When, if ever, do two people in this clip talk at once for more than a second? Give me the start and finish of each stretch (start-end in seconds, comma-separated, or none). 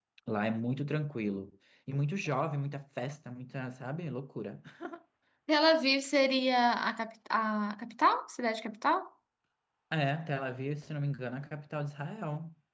none